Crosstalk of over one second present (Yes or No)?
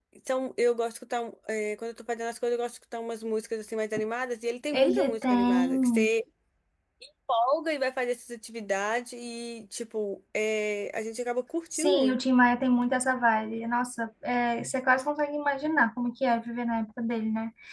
Yes